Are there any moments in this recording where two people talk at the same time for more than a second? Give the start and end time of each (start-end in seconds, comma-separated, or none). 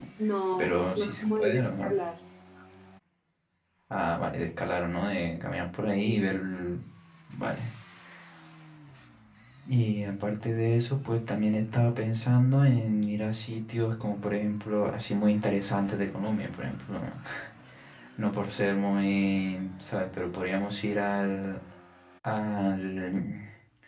0.6-1.9